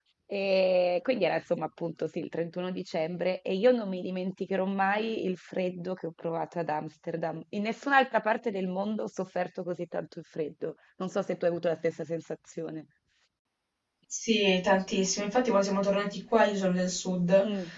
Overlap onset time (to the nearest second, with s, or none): none